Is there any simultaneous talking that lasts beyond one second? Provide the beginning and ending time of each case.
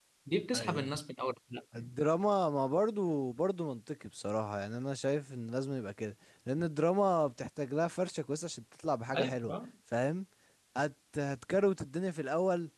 none

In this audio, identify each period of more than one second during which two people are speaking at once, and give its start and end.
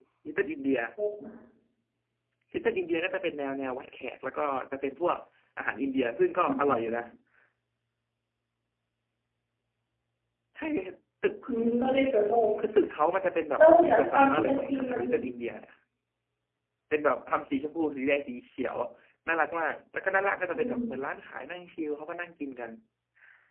13.6-15.0

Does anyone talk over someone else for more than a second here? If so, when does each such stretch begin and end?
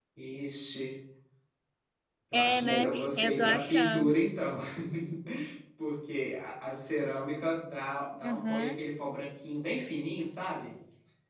2.3-4.1

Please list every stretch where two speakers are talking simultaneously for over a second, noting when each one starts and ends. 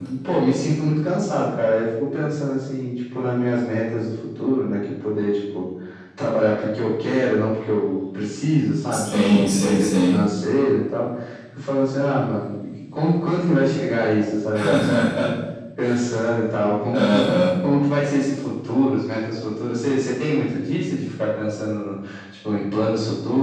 8.9-10.2

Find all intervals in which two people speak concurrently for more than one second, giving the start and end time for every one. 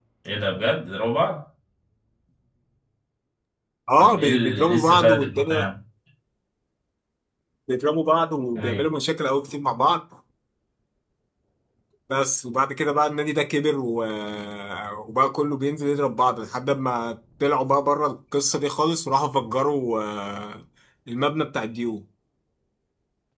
4.0-5.7

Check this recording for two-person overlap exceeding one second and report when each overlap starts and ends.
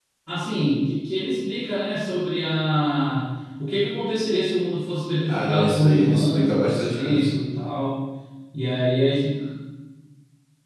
5.3-7.3

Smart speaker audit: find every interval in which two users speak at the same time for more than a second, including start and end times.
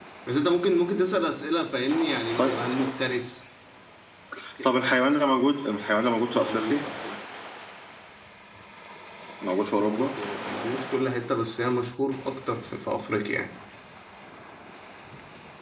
none

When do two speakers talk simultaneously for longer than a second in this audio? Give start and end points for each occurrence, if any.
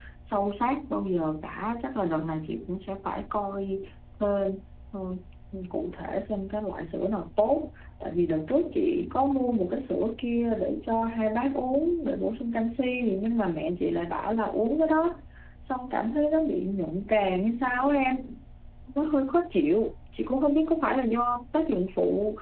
none

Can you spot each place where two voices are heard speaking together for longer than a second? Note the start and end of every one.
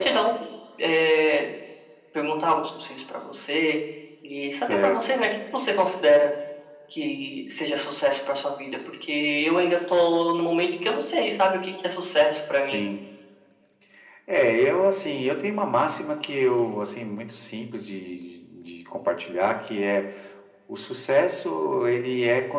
none

